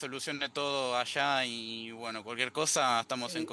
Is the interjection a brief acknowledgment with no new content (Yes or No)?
No